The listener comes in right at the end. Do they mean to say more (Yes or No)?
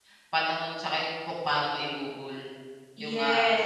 Yes